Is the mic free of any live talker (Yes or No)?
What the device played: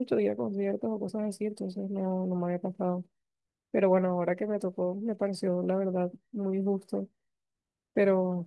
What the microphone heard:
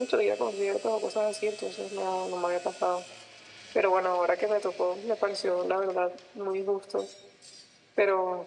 Yes